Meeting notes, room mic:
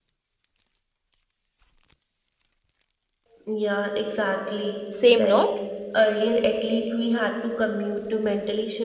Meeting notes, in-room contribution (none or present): present